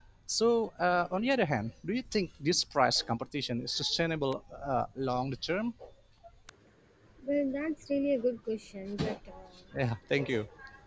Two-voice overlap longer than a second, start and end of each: none

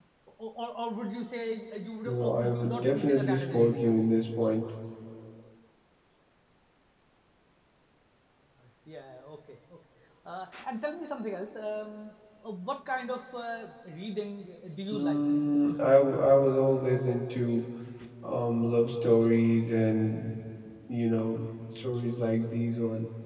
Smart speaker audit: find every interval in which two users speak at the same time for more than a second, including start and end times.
2.0-4.0

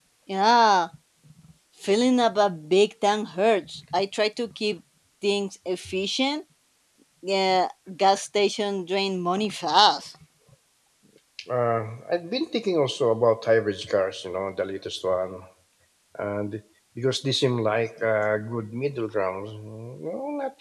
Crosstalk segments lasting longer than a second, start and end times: none

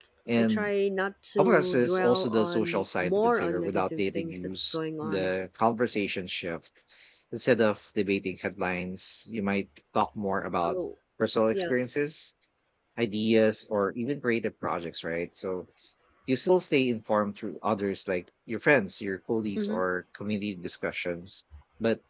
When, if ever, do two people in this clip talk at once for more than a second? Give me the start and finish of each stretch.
1.4-5.3

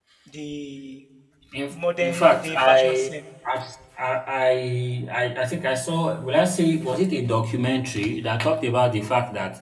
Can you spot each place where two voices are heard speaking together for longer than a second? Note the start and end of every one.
1.7-3.1

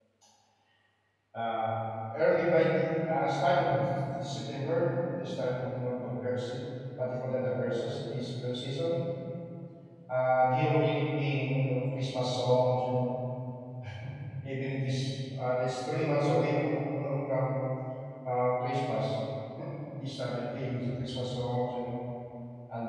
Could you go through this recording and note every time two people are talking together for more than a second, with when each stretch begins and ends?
none

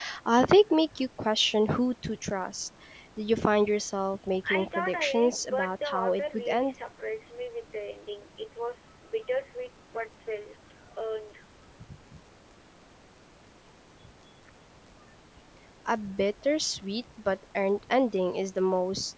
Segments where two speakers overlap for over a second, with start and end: 4.5-6.7

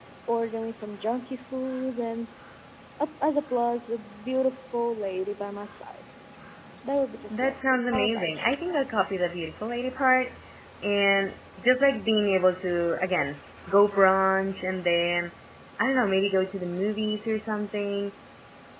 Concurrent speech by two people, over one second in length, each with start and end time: 7.3-8.6

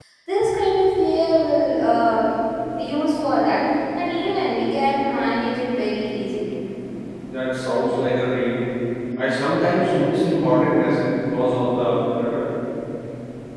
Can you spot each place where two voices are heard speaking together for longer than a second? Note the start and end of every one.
none

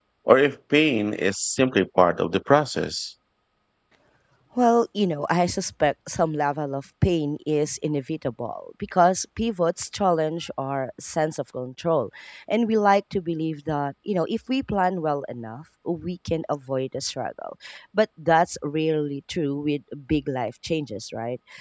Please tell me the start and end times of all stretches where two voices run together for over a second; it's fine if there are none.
none

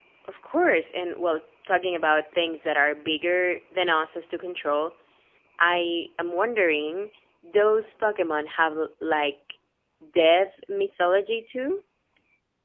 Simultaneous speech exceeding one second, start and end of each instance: none

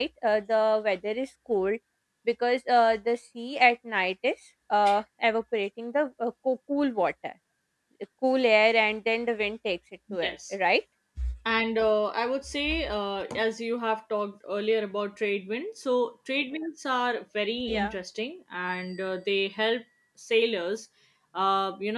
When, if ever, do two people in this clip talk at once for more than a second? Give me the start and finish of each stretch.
none

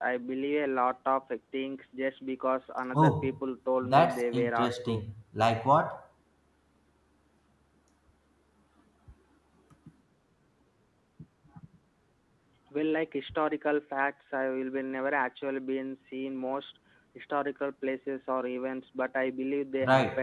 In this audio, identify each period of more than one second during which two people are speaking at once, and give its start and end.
3.8-5.0

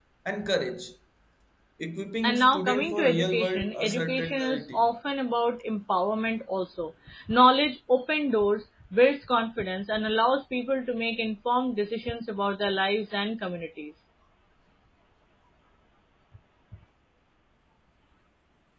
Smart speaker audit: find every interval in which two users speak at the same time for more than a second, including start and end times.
2.2-4.9

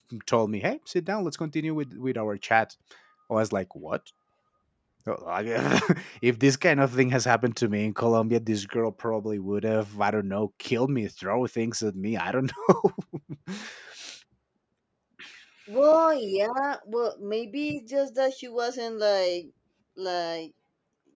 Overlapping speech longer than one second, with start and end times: none

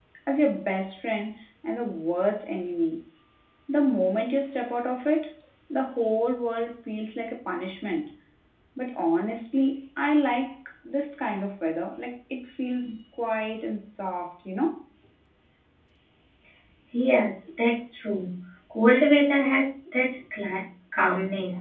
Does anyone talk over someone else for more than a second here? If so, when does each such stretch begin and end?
none

